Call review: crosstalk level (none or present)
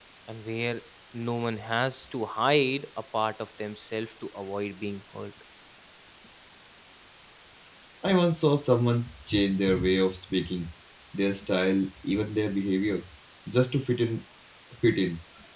none